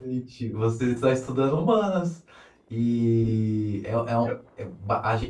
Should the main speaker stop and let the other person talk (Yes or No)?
No